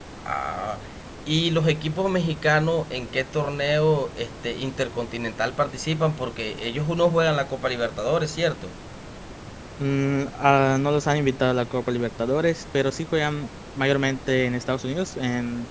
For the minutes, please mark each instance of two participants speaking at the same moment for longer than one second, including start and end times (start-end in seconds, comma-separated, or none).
none